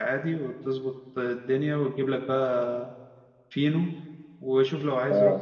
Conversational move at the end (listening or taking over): listening